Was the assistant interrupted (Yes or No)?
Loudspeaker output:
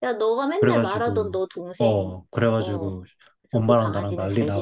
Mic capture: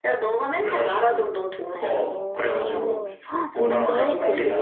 Yes